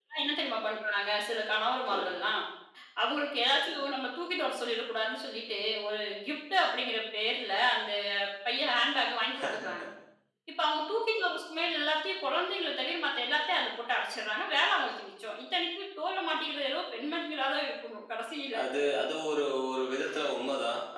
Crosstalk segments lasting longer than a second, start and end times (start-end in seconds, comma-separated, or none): none